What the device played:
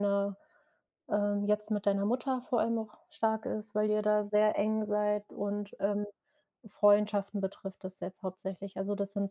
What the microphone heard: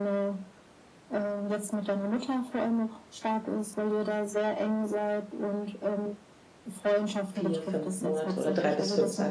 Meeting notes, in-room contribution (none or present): present